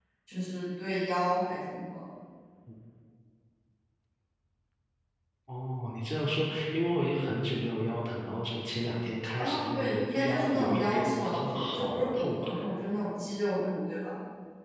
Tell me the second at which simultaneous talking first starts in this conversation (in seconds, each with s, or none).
9.4 s